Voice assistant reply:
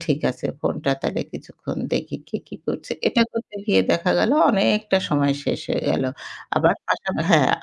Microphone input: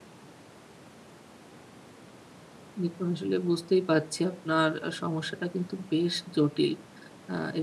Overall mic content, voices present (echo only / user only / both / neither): user only